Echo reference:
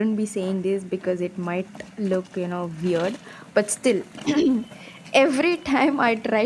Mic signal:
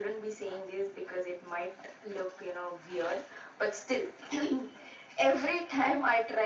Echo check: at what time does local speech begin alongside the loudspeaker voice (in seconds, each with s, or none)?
none